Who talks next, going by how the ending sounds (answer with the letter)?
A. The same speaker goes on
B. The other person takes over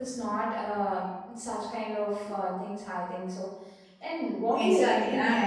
B